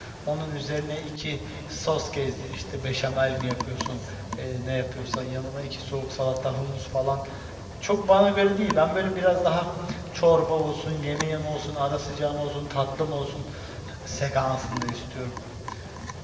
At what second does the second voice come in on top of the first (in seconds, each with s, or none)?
none